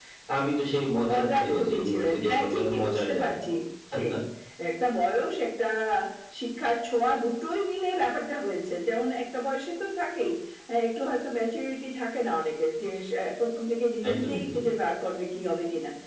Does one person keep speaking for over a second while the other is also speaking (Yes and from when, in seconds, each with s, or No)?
Yes, from 1.1 s